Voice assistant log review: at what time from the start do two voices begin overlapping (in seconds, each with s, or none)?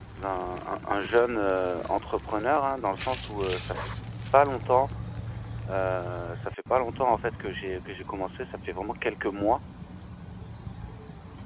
none